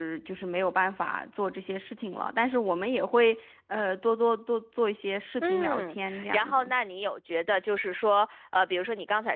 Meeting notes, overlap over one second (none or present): present